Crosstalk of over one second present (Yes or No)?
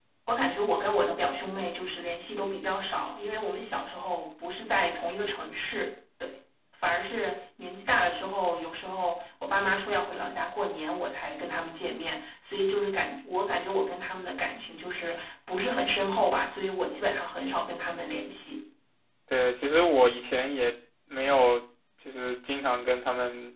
No